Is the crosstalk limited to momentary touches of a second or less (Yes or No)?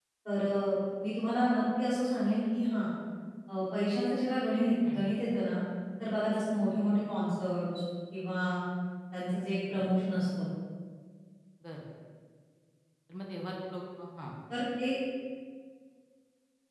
Yes